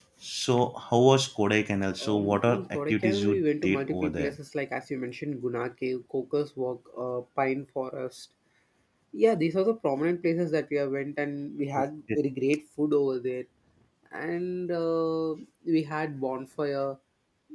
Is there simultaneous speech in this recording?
Yes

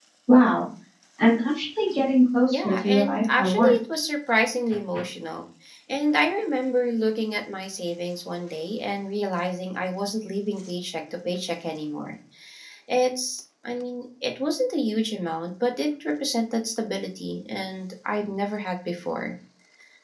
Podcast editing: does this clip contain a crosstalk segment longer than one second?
Yes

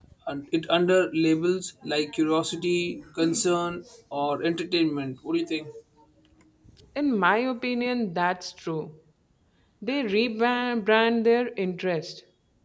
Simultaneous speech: No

